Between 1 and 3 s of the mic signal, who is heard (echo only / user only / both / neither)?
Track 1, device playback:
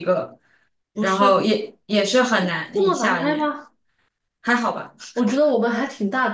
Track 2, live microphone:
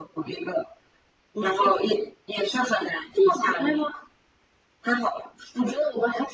echo only